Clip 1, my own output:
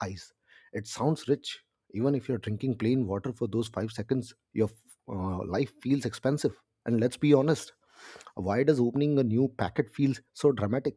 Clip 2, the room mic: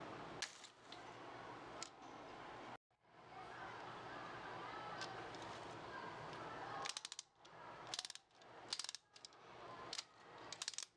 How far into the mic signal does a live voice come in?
none

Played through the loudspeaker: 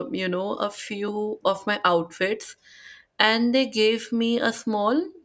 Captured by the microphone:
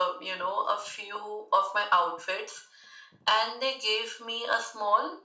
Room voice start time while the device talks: none

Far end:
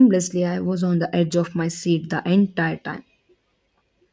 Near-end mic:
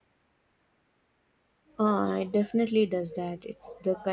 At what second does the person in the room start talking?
1.8 s

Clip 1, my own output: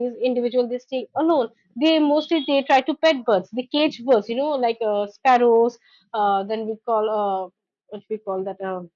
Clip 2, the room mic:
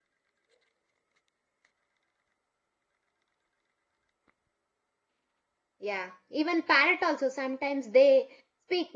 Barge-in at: 5.8 s

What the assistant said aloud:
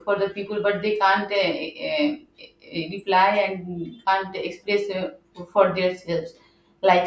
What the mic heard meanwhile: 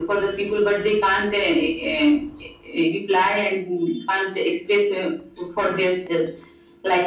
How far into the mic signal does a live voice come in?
none

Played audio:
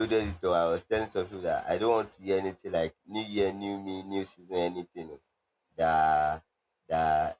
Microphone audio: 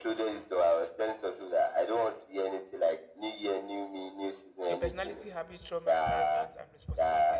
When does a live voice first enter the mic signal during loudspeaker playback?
4.7 s

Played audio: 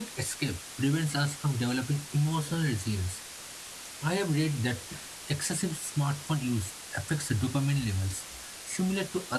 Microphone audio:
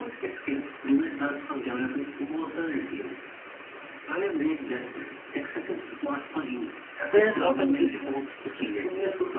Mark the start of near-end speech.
7.1 s

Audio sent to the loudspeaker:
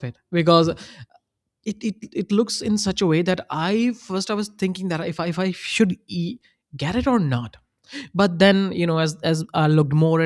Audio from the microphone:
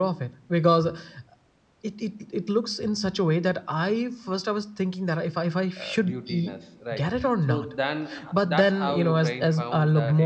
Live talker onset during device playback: 5.8 s

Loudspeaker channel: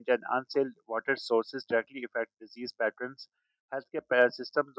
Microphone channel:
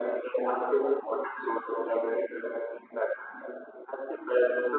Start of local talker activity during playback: none

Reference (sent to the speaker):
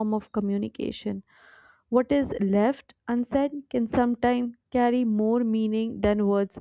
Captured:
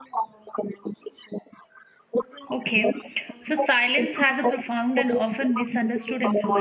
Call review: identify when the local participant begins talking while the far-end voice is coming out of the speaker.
2.5 s

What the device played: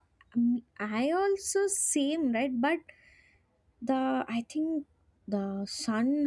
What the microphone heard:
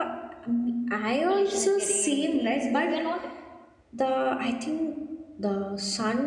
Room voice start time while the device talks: 1.3 s

